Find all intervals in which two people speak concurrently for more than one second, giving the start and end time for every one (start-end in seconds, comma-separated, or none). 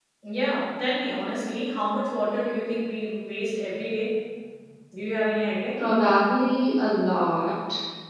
none